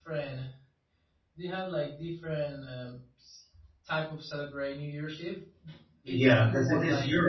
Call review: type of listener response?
taking over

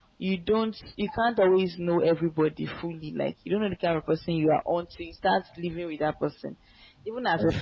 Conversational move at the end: listening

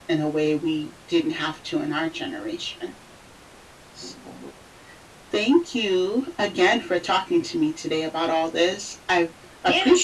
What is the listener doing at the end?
taking over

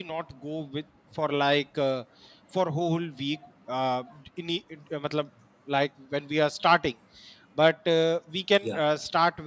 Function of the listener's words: listening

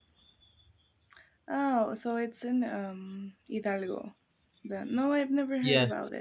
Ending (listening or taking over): listening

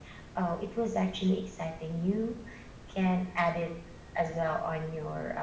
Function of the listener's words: taking over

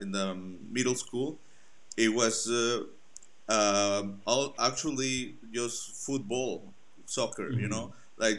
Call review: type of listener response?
listening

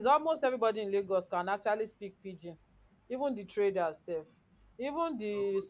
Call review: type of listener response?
listening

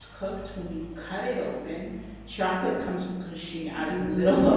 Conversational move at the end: taking over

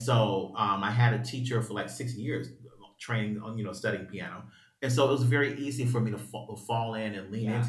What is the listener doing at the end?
listening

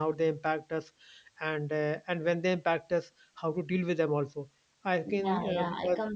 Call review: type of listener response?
taking over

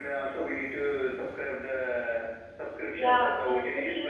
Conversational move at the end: taking over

